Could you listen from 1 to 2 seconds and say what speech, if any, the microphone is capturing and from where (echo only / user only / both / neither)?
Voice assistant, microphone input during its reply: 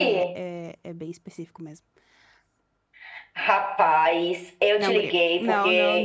user only